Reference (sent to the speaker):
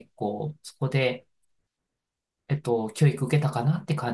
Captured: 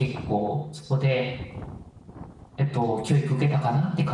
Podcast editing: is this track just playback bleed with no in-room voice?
Yes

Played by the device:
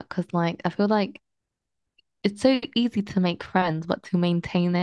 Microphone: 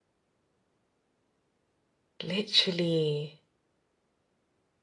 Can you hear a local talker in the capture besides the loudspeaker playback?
Yes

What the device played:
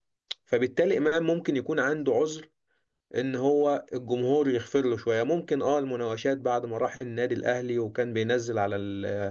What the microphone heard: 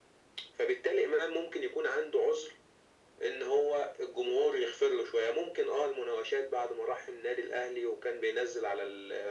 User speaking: No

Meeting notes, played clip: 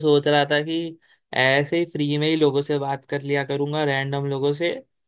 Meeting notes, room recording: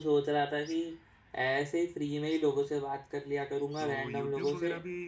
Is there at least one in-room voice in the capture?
Yes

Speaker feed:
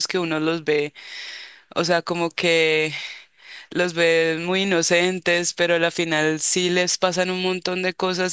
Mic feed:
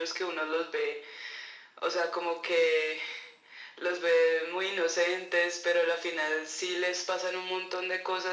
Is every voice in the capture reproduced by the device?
Yes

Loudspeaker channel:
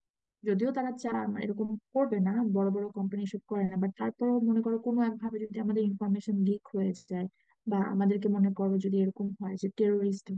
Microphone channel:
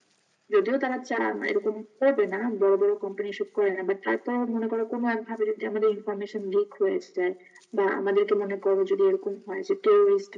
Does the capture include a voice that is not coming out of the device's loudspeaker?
No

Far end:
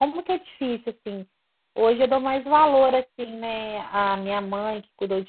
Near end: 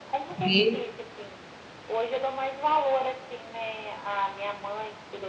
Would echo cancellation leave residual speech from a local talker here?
Yes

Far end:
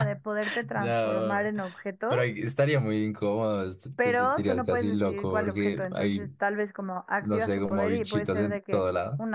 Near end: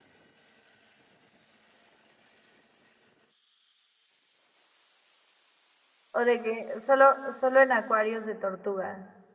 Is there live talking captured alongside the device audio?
Yes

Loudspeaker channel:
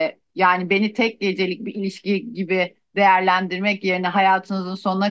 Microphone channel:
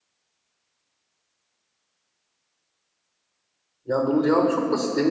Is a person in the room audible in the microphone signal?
Yes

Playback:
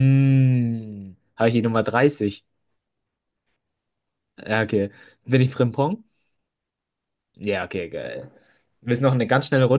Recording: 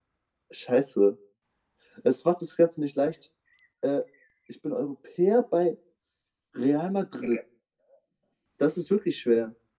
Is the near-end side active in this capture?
Yes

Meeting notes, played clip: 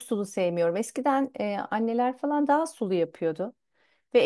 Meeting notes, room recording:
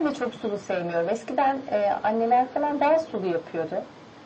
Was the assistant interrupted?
No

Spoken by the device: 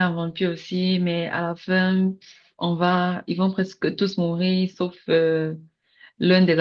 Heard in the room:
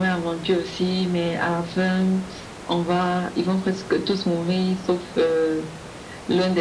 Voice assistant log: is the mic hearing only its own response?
Yes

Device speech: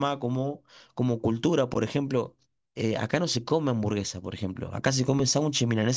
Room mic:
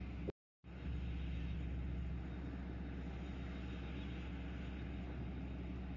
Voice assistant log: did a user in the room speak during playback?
No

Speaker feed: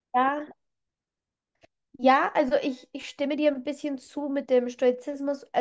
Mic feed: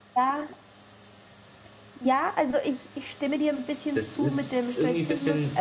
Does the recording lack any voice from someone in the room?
No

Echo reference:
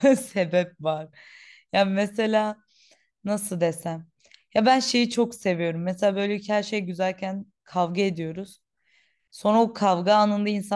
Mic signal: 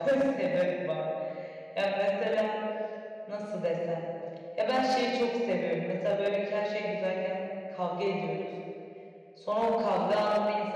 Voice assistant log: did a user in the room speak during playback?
No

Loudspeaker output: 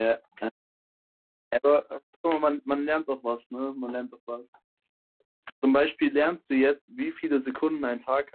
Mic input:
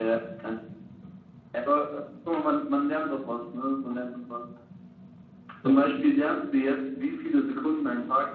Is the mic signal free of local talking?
No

